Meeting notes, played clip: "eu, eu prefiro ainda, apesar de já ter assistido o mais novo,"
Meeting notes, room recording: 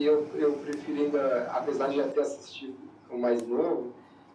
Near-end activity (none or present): none